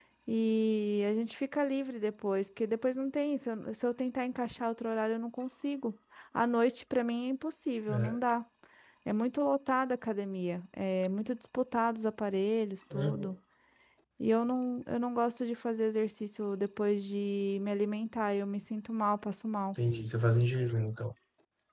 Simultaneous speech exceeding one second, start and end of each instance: none

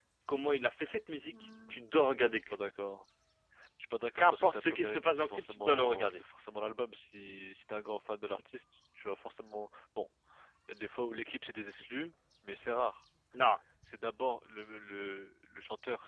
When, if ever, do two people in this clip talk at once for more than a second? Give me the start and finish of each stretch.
4.2-6.2

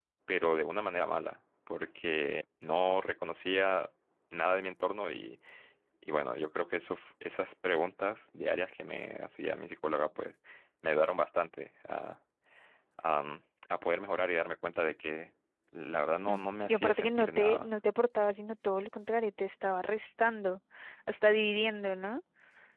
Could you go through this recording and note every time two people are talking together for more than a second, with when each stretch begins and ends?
16.3-17.7

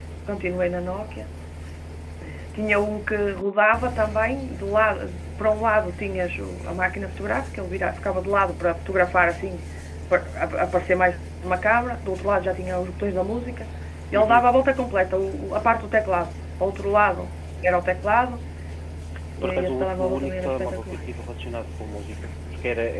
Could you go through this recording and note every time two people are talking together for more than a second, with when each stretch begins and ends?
19.4-21.0

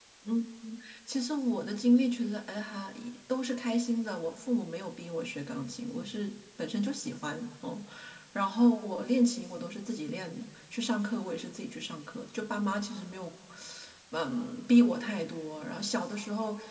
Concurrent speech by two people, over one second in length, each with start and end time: none

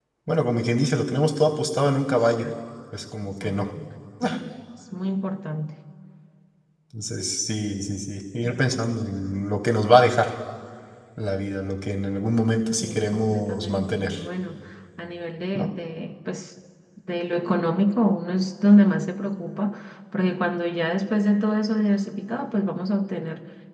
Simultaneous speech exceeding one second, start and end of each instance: 12.8-14.1

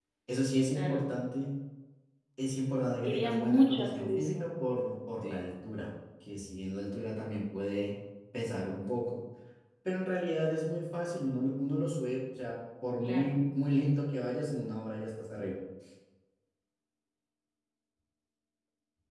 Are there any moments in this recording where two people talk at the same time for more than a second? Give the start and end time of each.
3.0-4.5

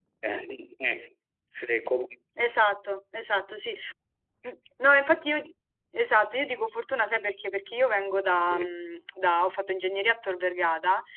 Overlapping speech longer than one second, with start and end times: none

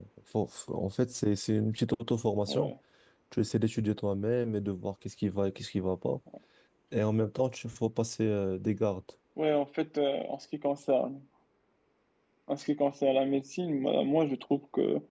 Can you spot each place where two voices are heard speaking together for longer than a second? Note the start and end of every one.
none

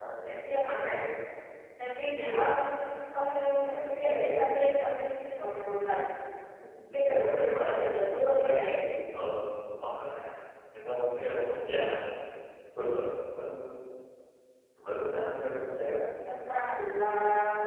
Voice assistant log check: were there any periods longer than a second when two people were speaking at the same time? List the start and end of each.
7.0-8.7

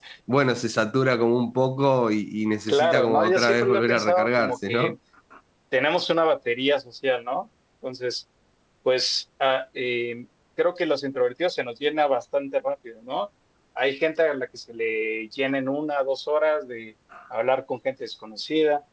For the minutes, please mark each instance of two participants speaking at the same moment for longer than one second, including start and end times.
2.7-4.9

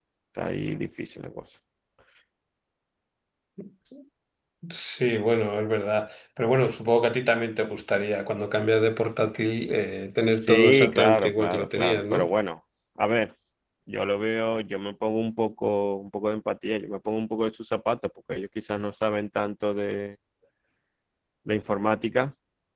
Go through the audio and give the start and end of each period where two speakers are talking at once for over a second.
10.4-12.3

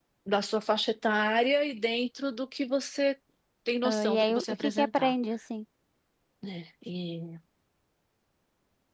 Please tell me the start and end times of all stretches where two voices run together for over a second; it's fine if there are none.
3.8-5.1

